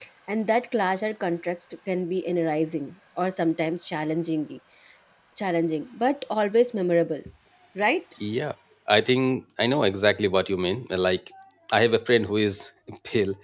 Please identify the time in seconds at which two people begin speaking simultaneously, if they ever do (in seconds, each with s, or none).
none